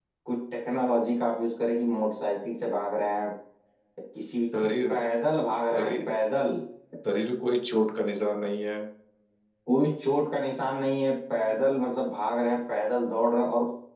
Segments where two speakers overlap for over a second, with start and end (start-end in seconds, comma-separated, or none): none